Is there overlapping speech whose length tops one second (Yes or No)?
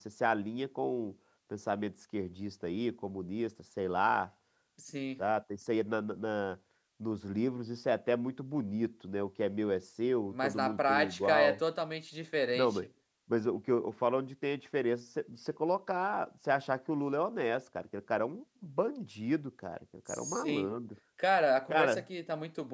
Yes